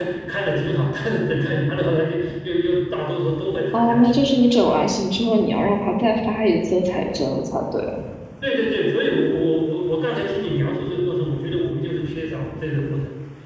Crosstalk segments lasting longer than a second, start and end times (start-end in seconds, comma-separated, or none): none